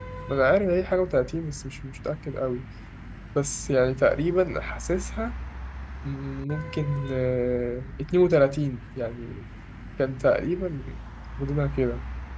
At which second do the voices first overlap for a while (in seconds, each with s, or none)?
none